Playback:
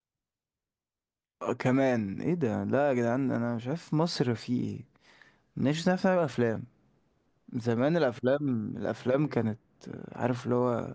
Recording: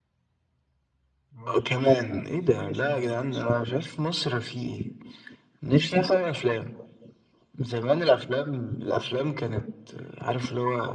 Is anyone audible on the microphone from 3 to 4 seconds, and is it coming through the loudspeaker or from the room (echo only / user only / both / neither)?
both